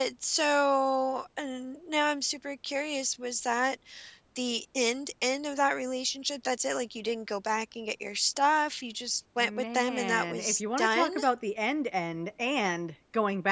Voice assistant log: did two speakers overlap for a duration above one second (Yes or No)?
Yes